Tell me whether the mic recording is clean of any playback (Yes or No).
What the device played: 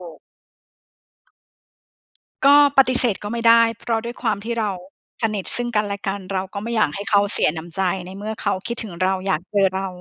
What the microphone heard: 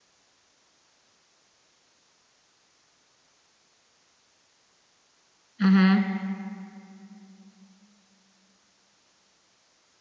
Yes